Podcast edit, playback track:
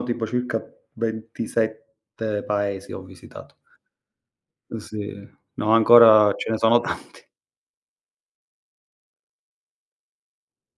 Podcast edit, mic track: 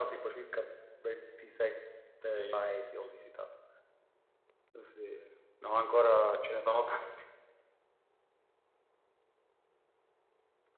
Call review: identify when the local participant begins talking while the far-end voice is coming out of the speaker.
2.2 s

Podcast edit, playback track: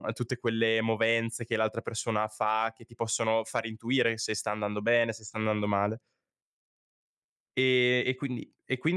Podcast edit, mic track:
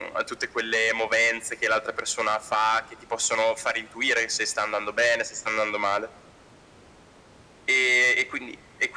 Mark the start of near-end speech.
none

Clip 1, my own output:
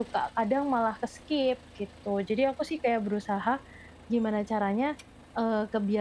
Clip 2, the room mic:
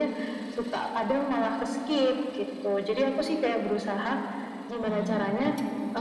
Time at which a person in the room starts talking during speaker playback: 4.8 s

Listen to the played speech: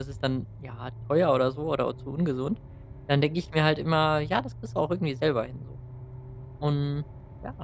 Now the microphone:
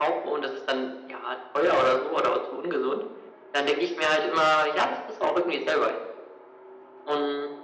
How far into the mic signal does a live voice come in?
none

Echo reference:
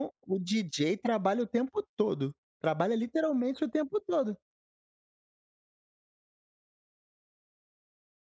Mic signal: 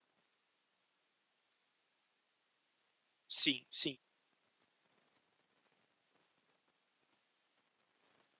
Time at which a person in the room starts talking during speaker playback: 3.3 s

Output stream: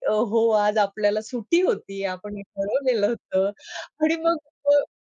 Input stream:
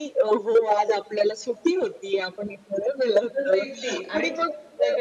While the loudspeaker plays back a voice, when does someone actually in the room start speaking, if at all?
3.4 s

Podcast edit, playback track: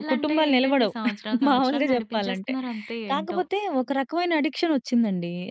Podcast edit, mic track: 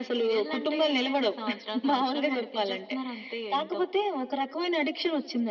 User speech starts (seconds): none

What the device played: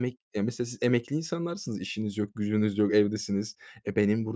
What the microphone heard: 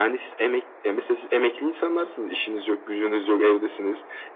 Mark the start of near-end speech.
none

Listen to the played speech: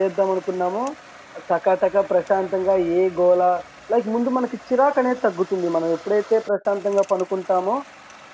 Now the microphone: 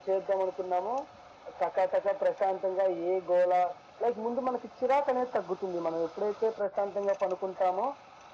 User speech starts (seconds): none

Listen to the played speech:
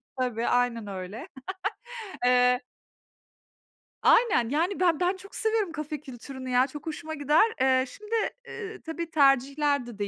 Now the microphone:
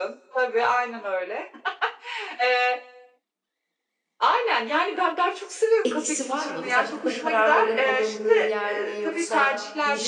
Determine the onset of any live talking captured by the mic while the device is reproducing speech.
5.8 s

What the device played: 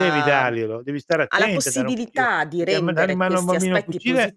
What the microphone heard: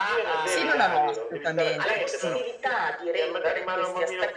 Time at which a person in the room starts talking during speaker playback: 0.5 s

